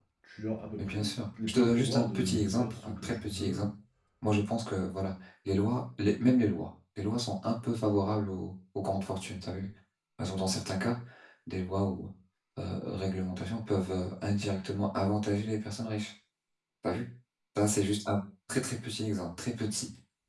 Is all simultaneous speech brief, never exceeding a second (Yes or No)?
No